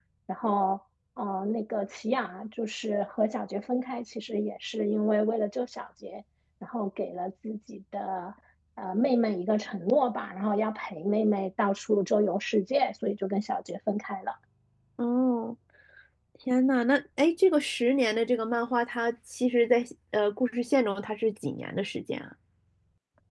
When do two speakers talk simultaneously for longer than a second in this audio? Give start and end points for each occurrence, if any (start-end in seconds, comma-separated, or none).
none